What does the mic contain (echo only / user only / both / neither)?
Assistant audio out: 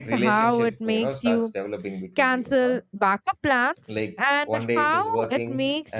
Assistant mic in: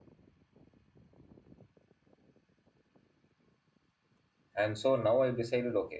user only